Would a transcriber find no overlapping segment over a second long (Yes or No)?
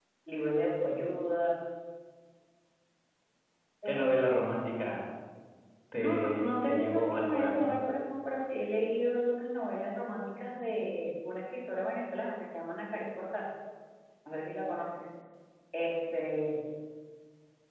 No